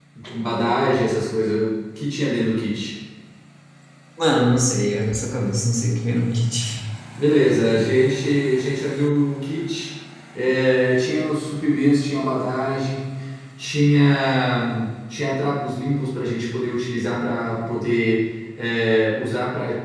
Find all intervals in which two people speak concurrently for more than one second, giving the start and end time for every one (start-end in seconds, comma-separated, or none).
none